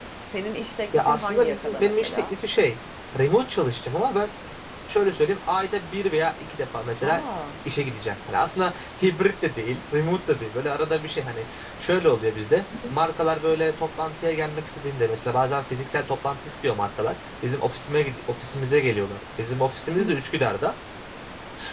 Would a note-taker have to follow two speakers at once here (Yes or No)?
Yes